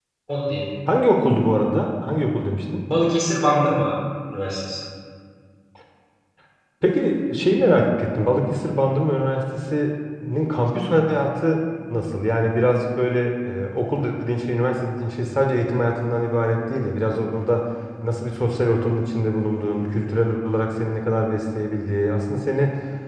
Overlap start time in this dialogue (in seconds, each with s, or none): none